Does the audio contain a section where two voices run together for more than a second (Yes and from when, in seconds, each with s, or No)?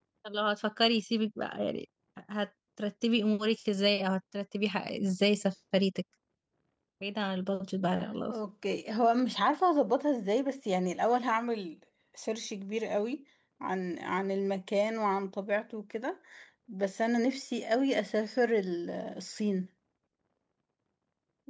No